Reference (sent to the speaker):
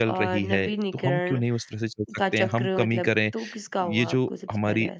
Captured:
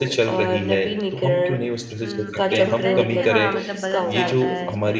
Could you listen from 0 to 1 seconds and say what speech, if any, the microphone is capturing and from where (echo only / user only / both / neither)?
echo only